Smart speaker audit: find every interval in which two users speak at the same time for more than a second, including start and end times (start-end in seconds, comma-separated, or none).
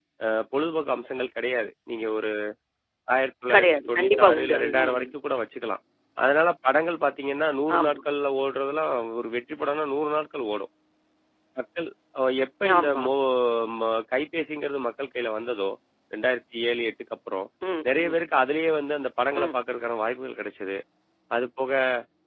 3.5-5.1